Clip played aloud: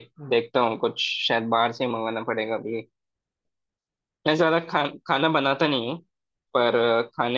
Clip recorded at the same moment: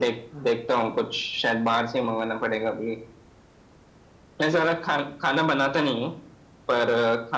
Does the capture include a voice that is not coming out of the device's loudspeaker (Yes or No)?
No